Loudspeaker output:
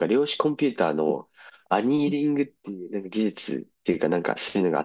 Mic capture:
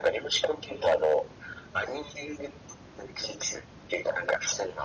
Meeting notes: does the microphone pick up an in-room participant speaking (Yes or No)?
No